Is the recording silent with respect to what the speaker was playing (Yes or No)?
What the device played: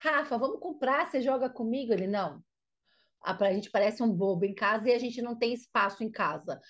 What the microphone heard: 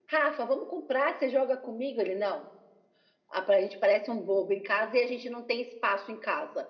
No